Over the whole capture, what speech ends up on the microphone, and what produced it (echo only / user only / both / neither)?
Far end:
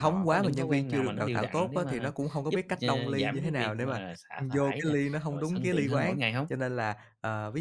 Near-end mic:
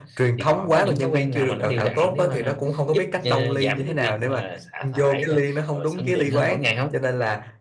echo only